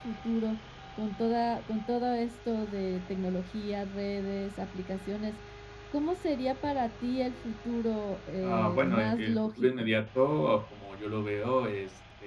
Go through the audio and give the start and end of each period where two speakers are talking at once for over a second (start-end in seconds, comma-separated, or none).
8.4-9.8